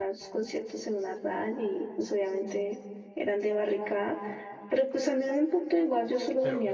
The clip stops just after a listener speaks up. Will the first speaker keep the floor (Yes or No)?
No